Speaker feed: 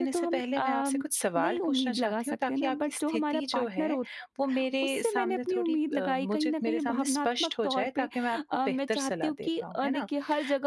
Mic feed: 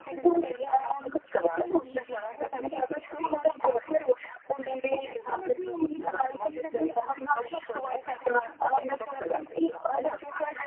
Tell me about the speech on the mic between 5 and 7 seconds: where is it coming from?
echo only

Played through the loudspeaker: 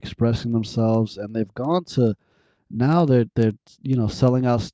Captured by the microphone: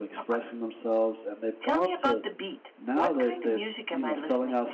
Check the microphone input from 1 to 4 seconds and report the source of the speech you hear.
both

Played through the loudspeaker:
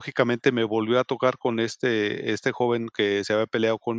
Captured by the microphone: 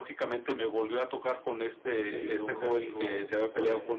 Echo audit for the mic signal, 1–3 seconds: both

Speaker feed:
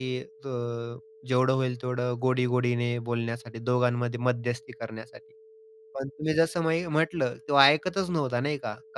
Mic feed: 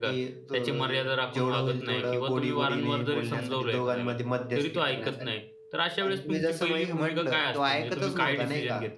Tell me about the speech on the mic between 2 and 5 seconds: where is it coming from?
both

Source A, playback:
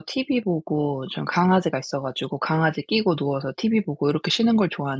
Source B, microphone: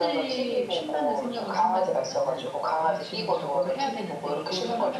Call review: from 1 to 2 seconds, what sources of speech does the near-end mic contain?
both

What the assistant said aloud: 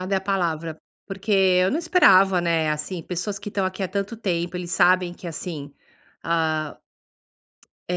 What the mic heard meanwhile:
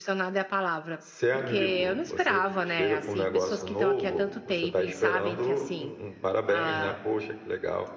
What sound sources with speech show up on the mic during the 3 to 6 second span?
both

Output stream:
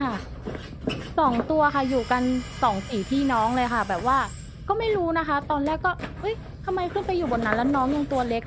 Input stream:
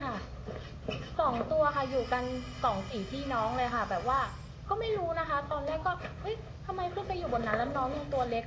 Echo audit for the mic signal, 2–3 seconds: echo only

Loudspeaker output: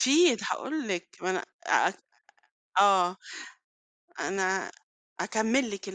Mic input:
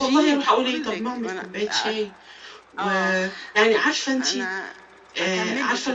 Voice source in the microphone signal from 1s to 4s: both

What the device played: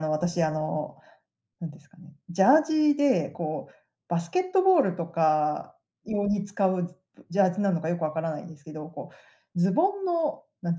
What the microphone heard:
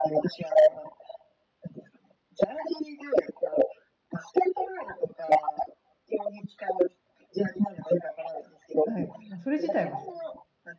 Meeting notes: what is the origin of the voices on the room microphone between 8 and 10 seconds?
both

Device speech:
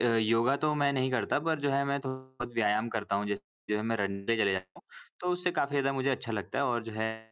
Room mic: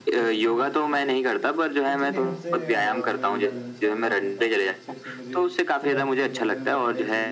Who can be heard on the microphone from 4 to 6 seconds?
both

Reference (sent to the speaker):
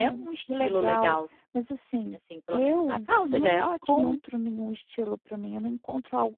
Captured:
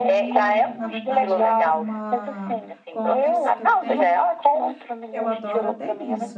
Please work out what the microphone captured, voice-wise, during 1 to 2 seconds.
both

